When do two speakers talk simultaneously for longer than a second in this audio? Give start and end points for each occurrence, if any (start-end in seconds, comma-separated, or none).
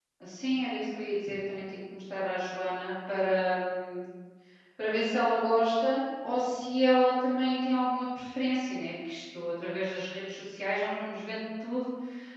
none